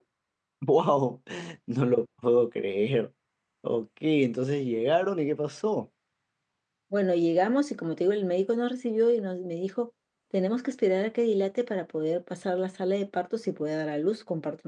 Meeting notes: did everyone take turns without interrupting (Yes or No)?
Yes